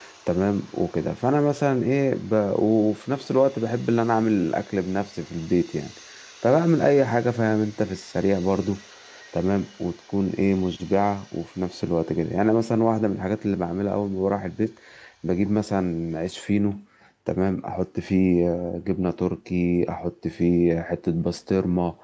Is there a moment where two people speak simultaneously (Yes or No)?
No